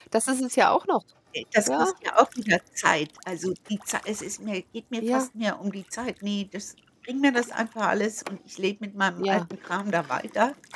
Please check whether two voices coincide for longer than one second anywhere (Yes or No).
No